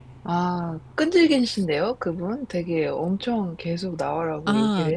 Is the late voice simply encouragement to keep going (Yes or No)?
No